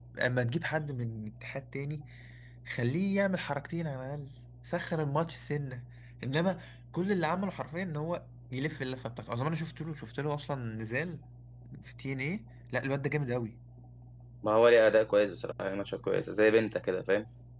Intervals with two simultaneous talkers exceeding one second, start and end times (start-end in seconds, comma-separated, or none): none